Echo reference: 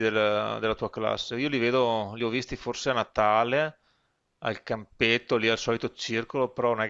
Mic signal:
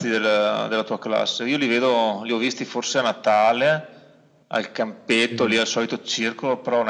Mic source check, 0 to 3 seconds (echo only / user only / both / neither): echo only